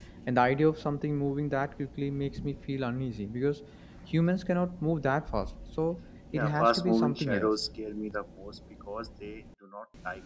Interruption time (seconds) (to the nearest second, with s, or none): 6 s